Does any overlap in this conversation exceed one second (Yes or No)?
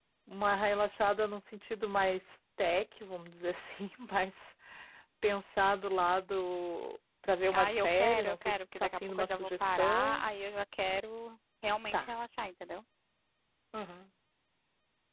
Yes